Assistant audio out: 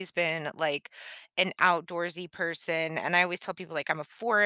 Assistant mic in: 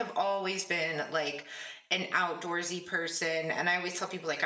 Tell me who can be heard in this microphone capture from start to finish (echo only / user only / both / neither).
echo only